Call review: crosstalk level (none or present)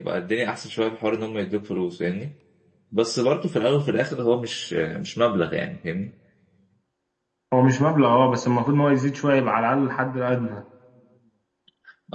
none